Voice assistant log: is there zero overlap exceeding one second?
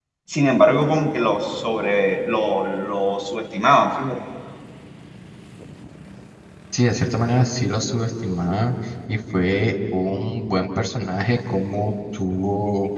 Yes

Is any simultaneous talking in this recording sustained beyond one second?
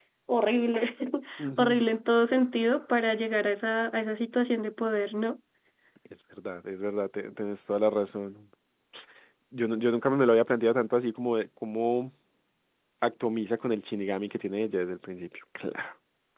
No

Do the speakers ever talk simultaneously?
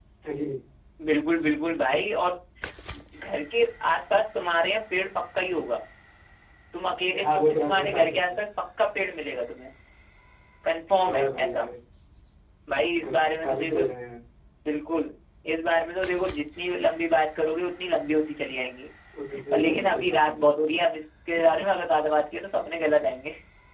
Yes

